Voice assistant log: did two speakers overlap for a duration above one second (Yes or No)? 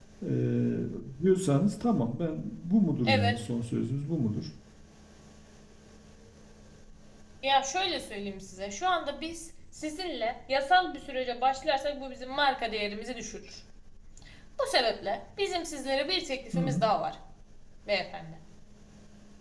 No